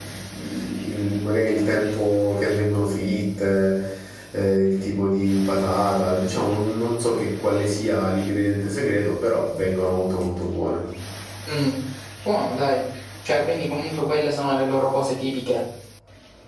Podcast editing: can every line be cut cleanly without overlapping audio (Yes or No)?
Yes